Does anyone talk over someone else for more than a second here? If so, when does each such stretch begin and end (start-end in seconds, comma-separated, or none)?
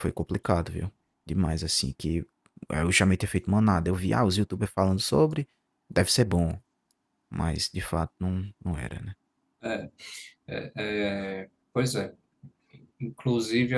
none